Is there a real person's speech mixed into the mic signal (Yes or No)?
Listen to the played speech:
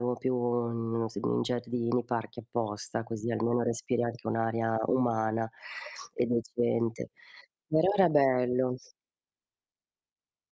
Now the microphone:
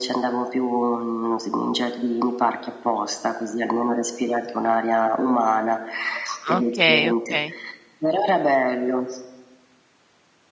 Yes